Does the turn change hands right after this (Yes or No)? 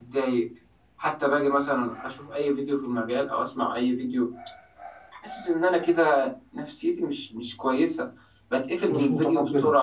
No